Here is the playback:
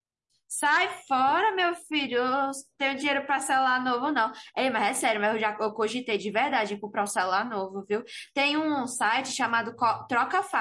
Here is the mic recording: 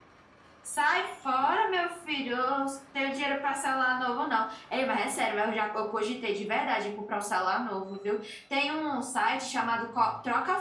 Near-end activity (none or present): none